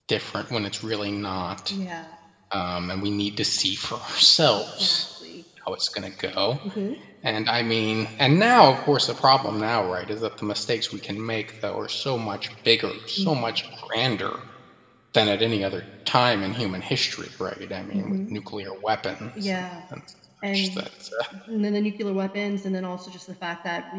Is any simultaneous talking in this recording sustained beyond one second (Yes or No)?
No